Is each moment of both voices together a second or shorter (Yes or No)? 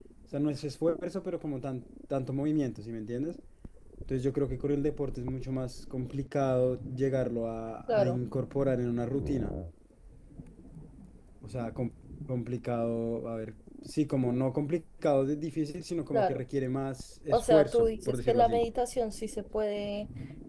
No